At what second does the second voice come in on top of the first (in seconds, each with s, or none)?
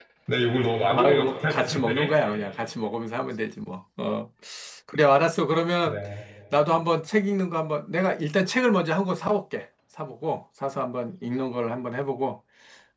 0.9 s